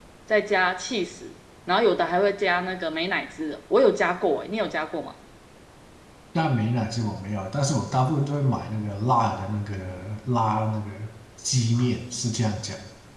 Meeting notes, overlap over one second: none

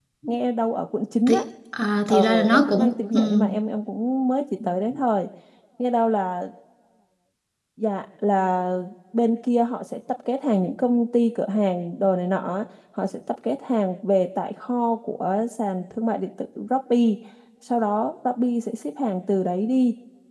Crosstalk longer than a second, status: present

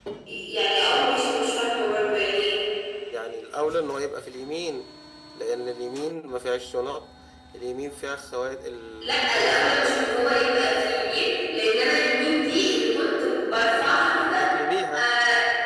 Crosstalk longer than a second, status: present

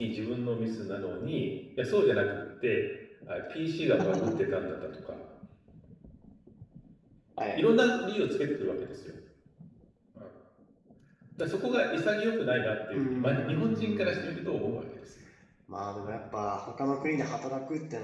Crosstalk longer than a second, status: present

